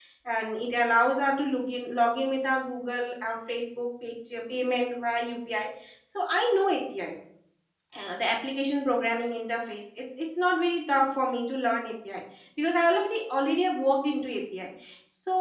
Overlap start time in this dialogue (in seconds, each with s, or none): none